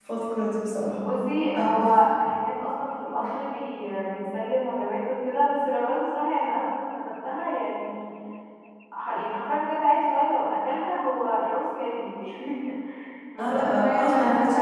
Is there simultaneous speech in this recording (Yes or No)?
Yes